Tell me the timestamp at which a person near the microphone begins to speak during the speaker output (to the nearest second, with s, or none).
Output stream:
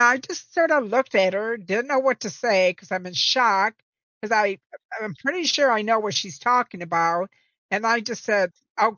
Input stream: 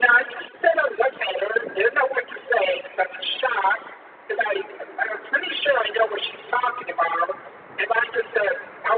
none